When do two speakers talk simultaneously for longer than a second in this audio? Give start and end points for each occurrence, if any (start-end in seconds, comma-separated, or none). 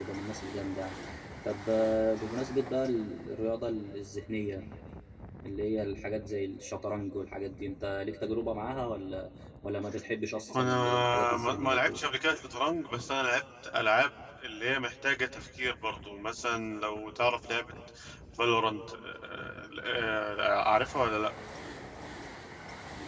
10.6-12.0